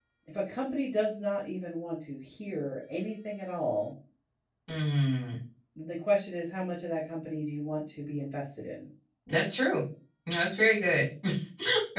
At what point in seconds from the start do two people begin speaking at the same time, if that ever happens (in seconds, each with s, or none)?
none